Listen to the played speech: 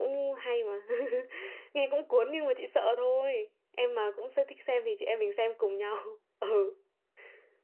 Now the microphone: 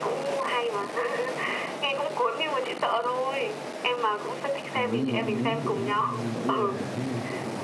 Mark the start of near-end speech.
4.7 s

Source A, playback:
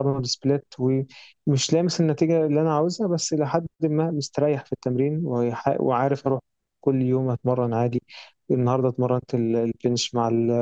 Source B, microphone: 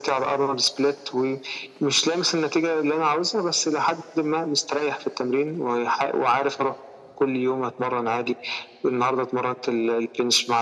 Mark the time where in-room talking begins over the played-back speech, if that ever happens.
none

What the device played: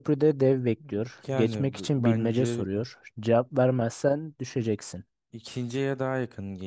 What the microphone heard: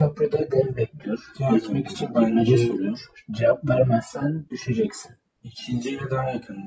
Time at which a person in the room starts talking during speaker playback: none

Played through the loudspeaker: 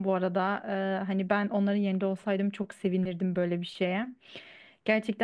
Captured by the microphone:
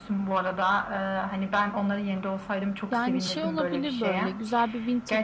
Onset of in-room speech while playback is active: 2.9 s

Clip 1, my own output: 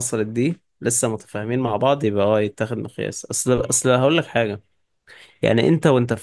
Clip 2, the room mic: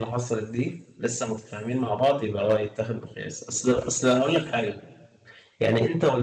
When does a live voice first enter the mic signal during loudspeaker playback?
none

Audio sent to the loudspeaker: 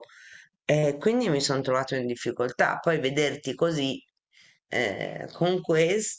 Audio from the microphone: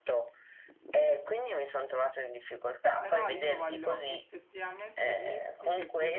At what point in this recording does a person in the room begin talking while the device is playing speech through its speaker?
3.0 s

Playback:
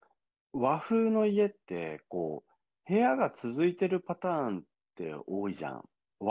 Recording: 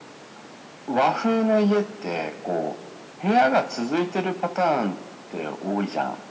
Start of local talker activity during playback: none

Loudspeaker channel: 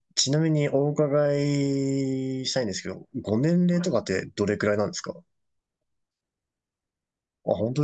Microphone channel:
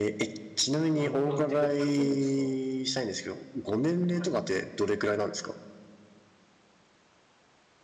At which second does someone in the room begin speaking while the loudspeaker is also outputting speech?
0.9 s

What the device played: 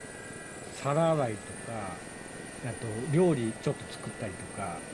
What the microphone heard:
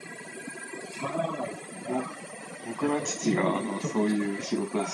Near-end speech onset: 1.9 s

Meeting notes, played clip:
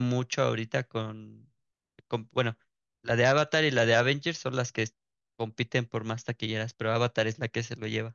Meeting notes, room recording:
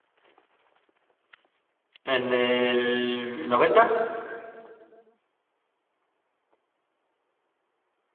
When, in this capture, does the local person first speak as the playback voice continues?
2.0 s

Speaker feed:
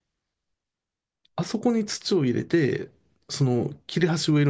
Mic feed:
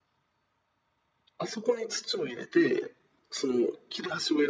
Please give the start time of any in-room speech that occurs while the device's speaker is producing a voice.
none

